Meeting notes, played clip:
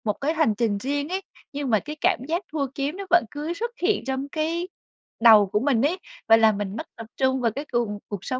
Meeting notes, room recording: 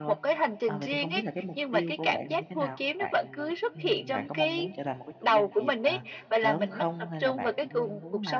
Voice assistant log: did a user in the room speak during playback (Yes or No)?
Yes